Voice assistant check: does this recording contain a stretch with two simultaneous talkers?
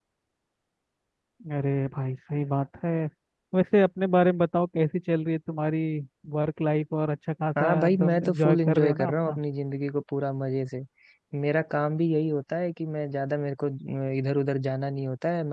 Yes, from 7.6 s

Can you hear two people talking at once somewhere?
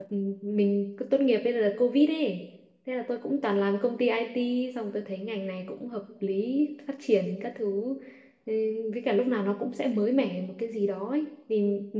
No

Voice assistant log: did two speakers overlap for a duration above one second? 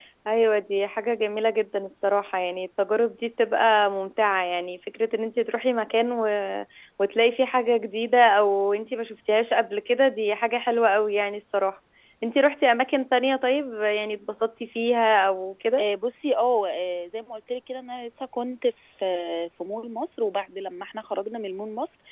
No

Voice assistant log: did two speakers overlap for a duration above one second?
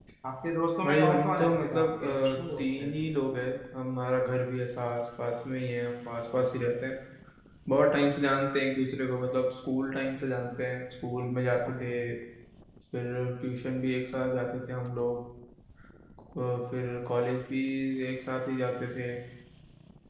Yes, from 0.8 s

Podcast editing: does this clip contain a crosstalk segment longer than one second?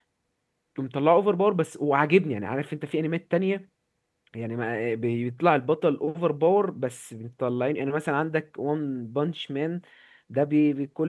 No

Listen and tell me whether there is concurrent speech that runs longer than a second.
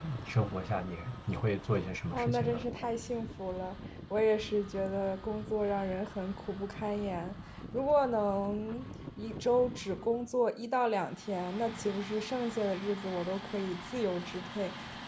No

